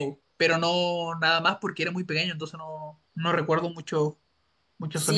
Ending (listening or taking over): taking over